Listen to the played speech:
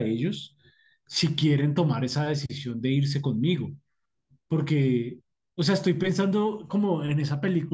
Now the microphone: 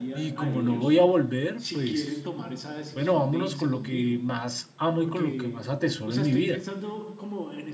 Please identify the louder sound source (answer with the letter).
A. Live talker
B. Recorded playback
A